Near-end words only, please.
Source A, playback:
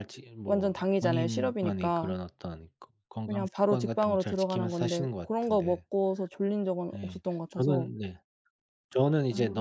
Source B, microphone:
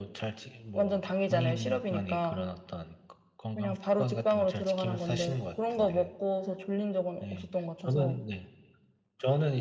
none

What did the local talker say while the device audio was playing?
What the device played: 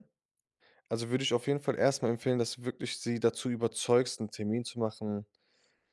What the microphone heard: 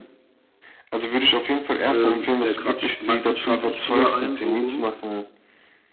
Ähm, äh, Quatsch, meistens schlafe ich früher ein, so rum,

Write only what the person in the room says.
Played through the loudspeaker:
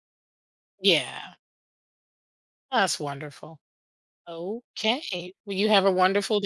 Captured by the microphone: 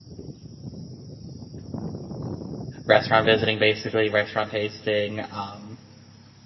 restaurant visiting, basically, restaurant tasting, um,

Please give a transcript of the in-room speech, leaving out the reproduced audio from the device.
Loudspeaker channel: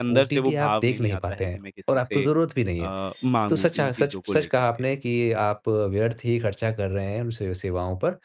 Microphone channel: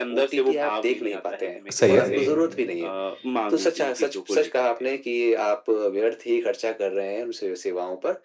सही है,

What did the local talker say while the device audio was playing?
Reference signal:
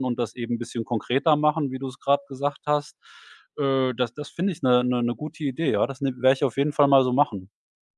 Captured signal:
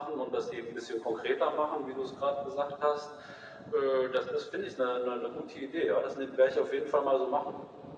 none

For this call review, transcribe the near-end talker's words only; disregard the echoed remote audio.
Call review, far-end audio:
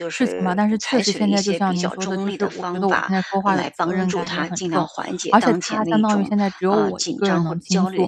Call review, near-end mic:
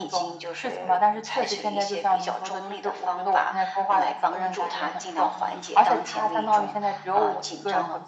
none

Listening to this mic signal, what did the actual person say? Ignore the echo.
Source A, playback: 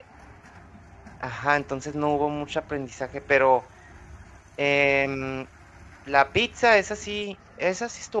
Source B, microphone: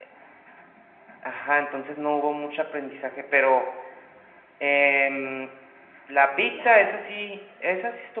Nada.

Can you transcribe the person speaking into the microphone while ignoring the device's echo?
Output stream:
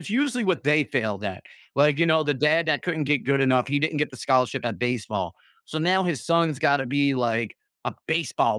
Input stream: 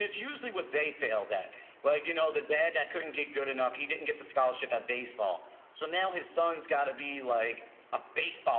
none

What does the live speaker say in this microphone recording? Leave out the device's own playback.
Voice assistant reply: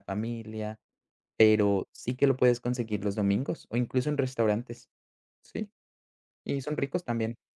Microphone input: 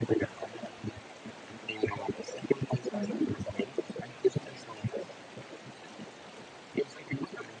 ujú.

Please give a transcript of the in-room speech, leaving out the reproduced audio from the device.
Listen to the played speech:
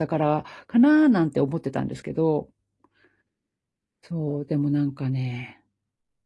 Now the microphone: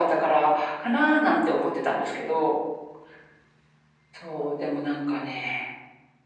none

